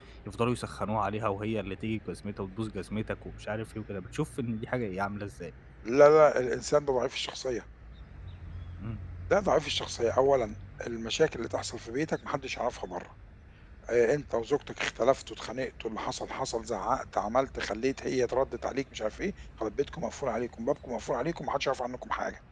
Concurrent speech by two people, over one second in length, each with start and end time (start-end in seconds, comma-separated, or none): none